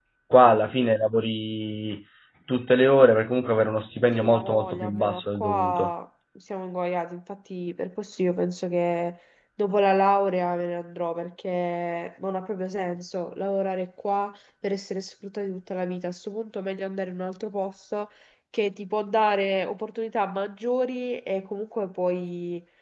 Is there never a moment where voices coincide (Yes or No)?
No